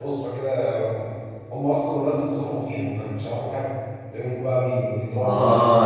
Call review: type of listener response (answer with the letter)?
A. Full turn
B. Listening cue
A